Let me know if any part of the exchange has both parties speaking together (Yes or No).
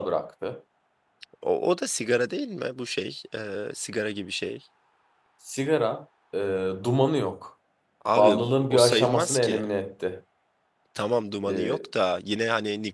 Yes